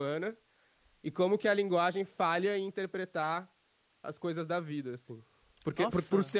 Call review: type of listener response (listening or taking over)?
listening